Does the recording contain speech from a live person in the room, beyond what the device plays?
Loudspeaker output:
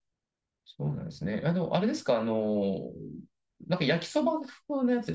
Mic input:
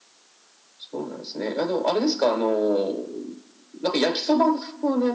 No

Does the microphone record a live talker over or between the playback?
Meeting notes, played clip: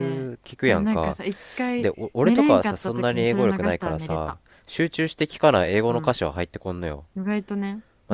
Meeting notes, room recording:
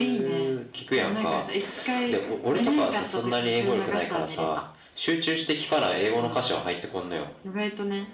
No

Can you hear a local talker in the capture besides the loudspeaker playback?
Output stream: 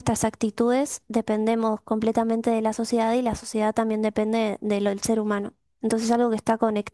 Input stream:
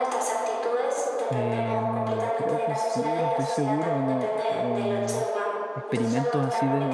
Yes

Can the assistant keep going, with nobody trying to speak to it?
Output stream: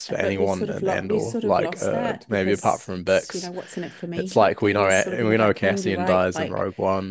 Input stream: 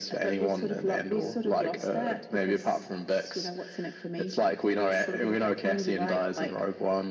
Yes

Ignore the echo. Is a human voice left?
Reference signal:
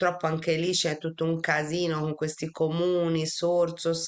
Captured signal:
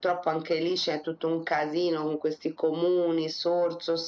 No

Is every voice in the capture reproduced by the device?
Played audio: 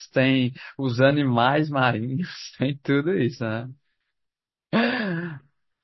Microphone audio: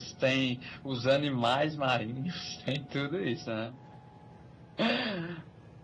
Yes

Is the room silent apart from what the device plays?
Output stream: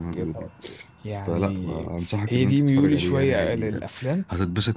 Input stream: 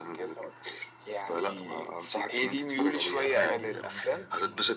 No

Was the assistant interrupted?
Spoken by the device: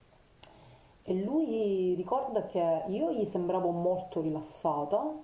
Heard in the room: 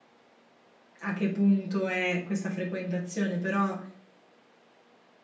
Yes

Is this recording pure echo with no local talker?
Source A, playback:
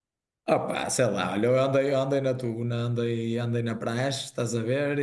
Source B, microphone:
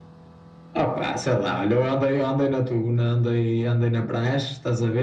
Yes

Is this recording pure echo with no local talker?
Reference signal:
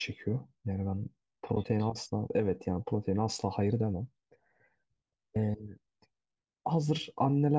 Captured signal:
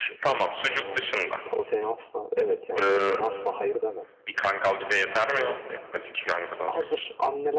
No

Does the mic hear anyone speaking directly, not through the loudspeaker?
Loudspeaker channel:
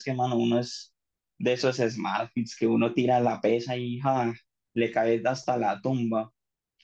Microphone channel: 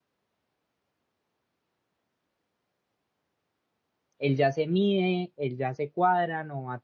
Yes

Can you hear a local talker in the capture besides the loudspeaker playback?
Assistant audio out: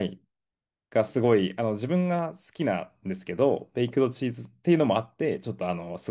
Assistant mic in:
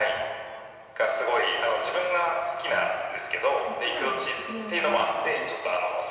Yes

